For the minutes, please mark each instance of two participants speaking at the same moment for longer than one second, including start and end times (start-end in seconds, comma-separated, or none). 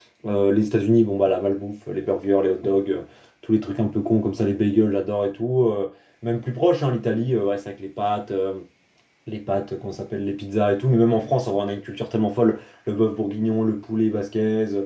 none